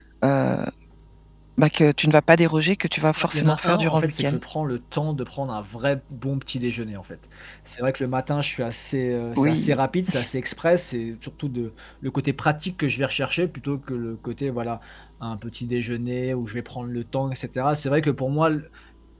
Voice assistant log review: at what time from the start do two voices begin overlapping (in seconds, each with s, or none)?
3.2 s